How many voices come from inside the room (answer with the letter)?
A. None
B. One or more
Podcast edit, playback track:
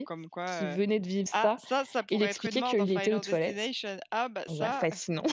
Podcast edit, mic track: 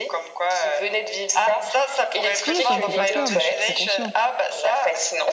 B